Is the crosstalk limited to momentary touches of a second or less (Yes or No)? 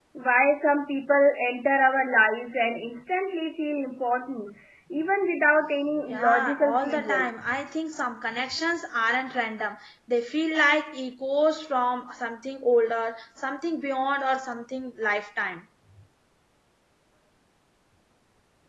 No